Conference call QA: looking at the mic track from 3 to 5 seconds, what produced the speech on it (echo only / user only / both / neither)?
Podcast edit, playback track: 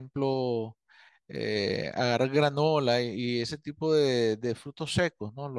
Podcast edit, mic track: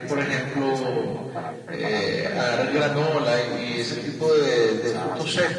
both